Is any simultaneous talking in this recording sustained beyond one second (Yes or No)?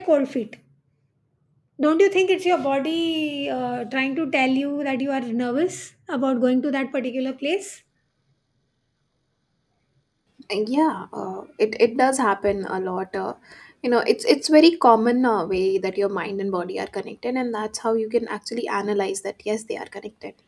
No